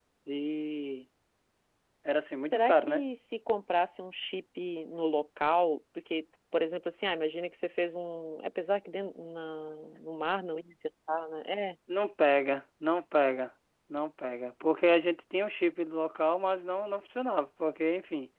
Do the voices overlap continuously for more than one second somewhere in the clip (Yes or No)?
No